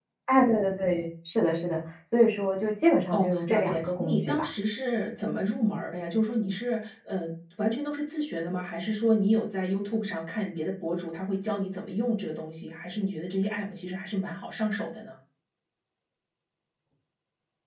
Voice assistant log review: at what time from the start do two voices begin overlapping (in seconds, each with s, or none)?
3.1 s